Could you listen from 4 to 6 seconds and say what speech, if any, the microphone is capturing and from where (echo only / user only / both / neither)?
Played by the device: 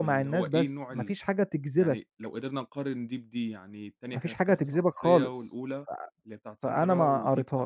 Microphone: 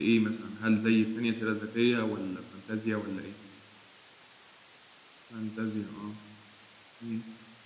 user only